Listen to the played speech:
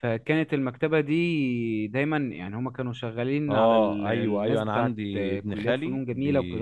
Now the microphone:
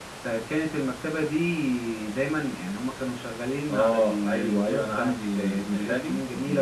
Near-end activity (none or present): none